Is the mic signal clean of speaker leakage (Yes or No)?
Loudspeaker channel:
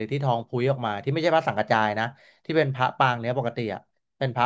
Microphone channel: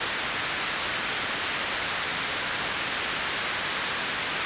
Yes